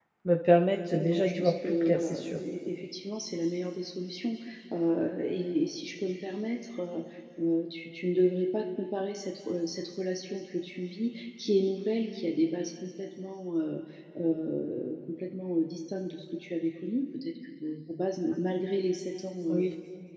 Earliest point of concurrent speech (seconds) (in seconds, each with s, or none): 0.9 s